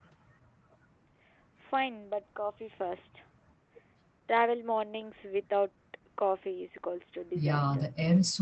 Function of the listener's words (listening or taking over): taking over